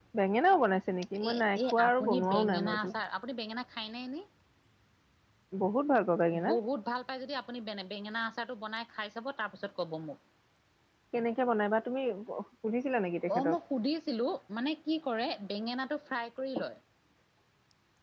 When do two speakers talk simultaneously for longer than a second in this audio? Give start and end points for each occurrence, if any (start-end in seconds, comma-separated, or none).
1.3-2.9